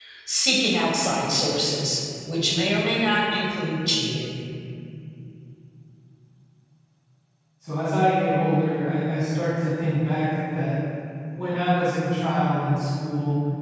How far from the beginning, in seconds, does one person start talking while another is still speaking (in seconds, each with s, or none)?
none